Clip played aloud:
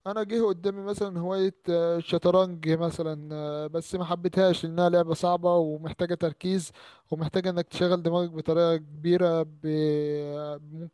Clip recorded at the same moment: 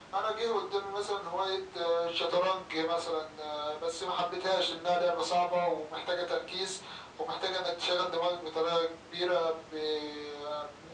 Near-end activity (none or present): none